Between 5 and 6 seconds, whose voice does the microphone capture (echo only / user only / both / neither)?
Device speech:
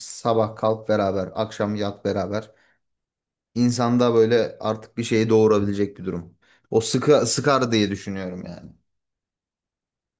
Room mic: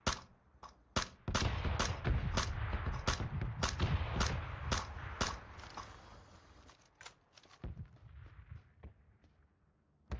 neither